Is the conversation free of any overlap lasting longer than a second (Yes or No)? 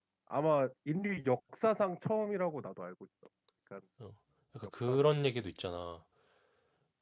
Yes